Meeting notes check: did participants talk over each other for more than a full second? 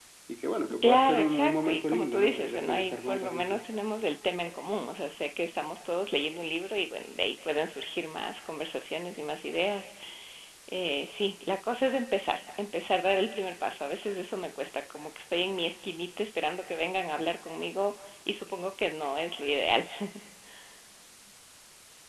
Yes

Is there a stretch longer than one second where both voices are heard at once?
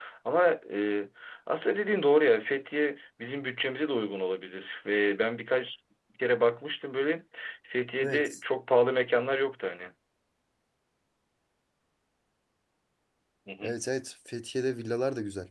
No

